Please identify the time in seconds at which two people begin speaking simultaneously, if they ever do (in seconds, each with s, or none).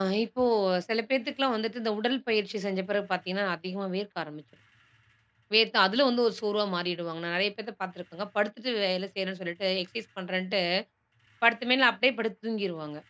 none